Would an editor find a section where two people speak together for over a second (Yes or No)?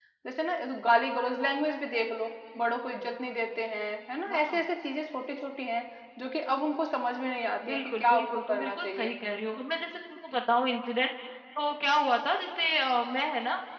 Yes